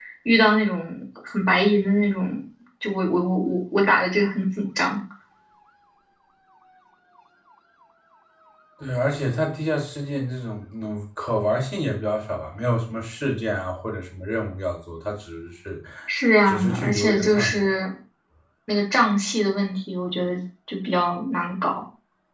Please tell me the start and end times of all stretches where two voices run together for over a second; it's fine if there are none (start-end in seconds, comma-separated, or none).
16.5-17.7